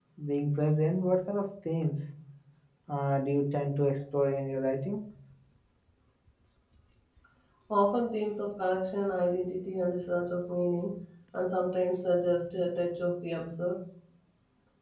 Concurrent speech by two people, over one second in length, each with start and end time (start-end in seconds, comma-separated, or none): none